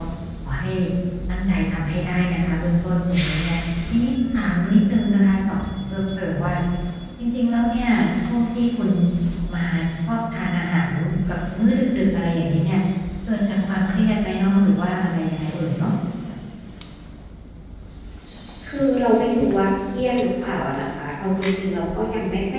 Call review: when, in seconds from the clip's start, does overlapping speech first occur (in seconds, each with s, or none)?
none